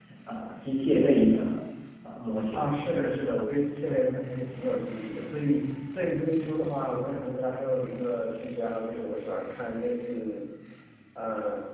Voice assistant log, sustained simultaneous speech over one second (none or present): none